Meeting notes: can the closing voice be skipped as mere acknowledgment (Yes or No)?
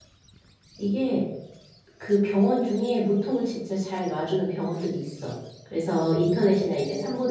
Yes